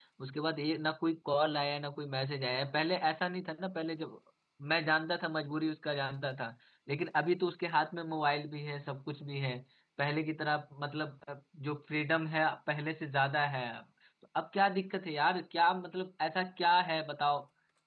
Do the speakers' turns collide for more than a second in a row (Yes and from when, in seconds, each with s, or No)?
No